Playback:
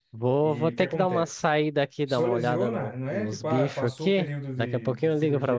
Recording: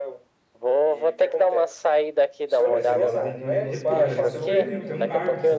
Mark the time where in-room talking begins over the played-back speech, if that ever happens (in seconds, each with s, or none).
2.6 s